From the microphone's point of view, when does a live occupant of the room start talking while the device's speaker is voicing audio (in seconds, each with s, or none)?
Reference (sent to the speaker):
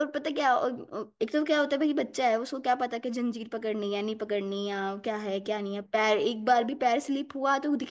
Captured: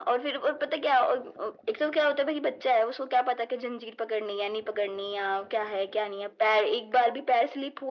none